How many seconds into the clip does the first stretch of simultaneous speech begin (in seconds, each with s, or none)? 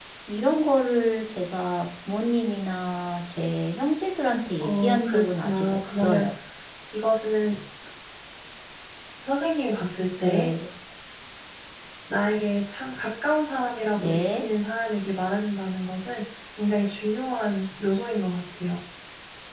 4.6 s